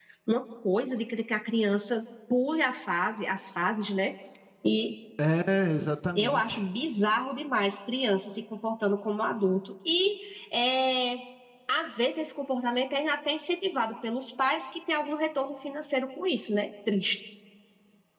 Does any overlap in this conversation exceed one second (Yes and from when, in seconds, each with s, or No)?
No